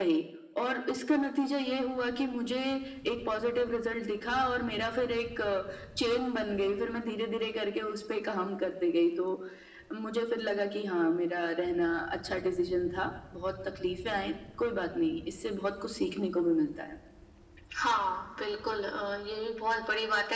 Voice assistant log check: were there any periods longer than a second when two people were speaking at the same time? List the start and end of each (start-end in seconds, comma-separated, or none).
none